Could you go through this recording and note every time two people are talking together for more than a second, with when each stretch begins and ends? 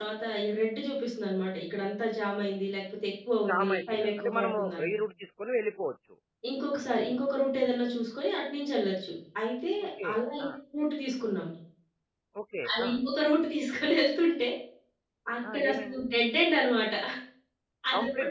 3.5-4.9

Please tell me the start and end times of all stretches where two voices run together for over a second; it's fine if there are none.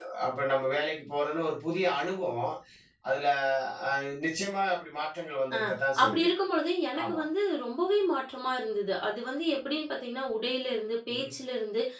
none

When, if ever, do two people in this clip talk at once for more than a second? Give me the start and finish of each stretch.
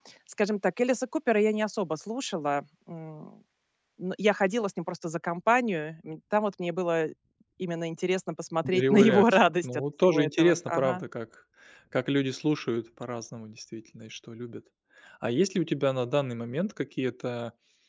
8.7-11.0

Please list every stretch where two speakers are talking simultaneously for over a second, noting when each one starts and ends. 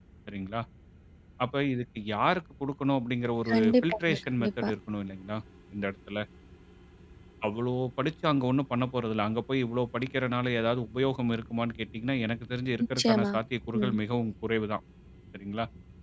3.5-4.7

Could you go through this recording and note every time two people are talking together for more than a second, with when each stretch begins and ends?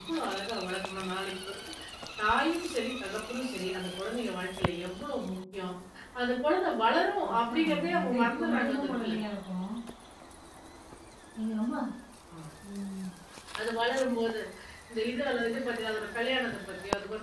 7.3-9.1

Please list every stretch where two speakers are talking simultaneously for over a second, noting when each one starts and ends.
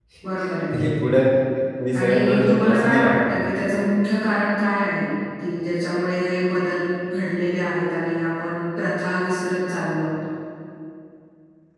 1.9-3.4

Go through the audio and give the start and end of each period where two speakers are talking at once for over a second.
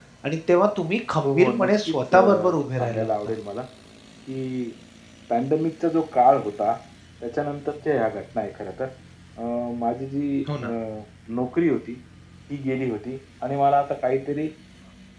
1.2-3.3

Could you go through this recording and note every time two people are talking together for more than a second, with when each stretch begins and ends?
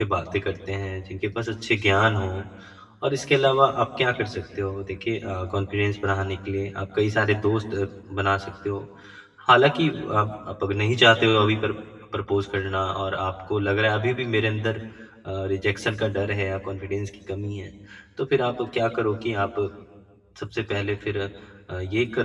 none

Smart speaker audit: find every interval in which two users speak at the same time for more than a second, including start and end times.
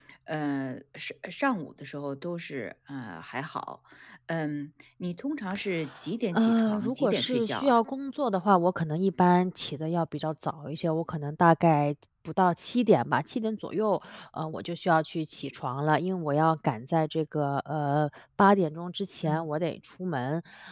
6.3-7.8

